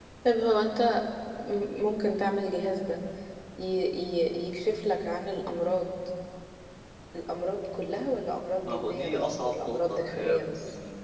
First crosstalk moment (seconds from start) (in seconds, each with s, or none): 8.7 s